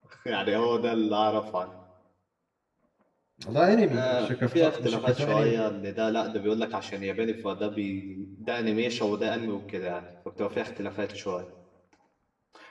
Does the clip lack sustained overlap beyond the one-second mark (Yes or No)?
No